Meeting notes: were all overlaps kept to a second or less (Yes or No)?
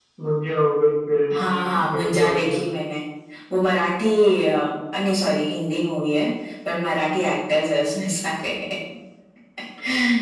No